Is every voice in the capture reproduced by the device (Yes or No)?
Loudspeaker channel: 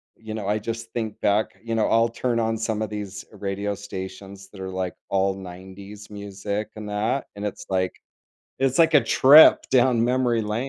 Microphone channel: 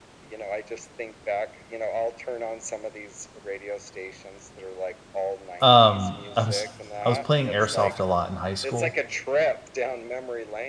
No